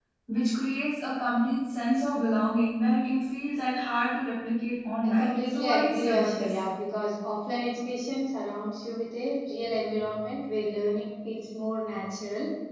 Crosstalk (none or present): present